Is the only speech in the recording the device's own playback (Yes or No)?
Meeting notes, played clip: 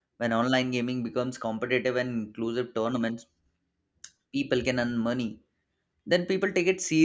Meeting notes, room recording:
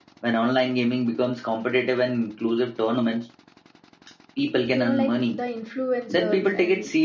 No